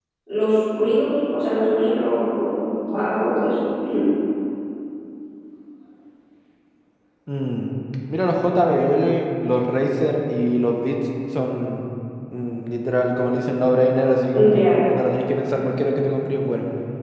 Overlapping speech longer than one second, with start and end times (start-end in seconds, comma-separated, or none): none